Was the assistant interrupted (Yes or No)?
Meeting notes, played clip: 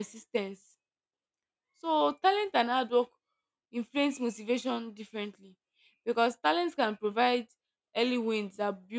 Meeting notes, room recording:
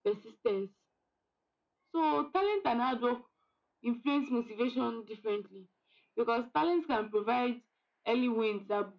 No